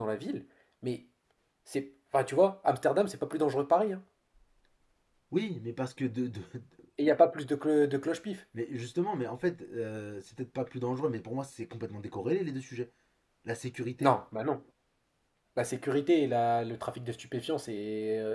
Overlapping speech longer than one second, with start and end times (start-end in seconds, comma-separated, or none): none